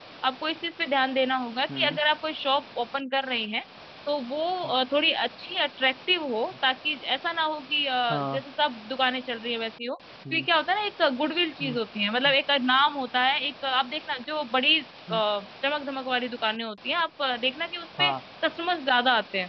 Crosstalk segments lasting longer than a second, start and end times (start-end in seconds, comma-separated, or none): none